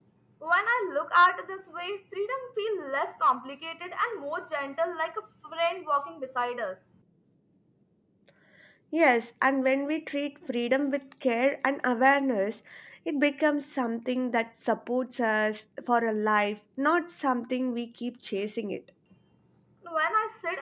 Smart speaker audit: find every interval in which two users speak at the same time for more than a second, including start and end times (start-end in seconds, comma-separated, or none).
none